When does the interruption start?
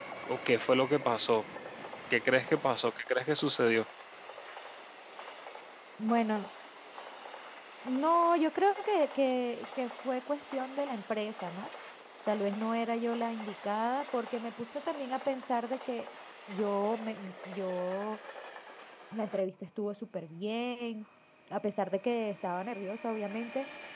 none

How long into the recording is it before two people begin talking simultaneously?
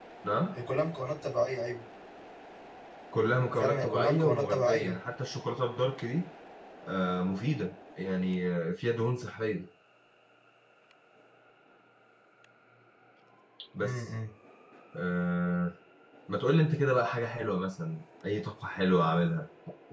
4 s

